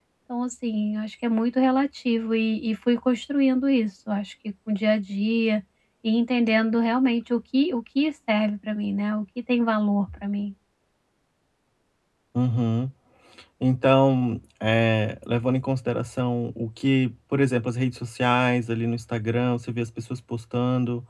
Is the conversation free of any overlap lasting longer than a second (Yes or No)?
Yes